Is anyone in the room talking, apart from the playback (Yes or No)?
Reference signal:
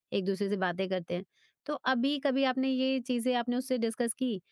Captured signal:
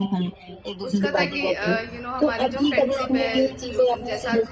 Yes